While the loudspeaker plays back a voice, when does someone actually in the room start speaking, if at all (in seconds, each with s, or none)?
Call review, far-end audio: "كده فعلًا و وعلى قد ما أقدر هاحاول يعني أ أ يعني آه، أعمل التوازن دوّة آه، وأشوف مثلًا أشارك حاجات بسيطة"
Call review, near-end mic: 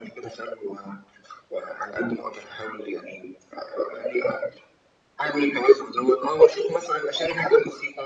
none